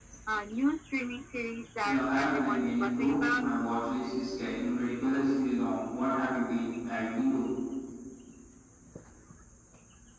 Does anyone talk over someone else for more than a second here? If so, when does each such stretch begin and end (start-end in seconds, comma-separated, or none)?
1.8-3.4